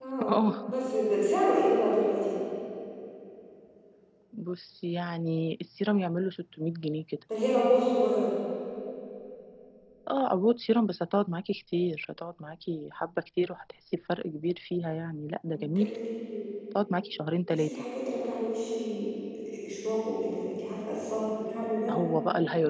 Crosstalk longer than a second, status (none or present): none